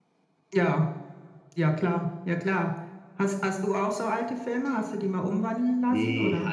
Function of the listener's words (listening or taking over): taking over